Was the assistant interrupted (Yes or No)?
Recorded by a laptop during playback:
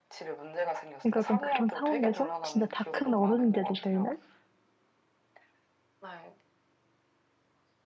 Yes